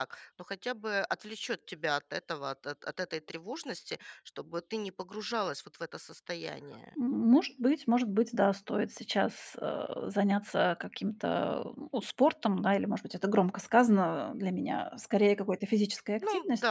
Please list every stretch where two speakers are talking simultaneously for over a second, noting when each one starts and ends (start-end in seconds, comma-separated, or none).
none